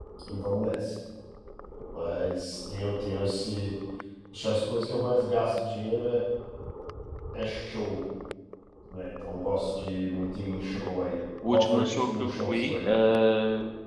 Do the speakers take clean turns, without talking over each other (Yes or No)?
No